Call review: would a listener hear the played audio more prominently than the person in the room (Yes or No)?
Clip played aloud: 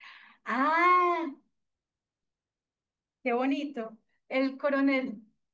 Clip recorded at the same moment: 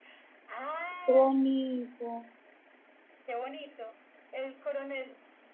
No